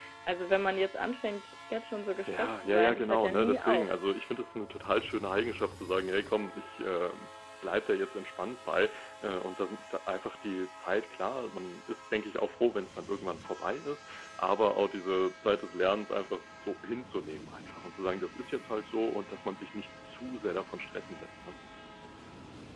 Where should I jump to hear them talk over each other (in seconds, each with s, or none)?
2.3 s